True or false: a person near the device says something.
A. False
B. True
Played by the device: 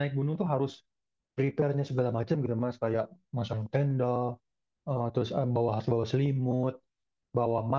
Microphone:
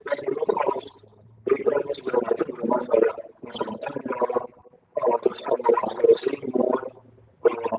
A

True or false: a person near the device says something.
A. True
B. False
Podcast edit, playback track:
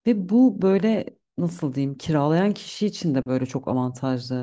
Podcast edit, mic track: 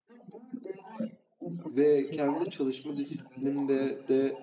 A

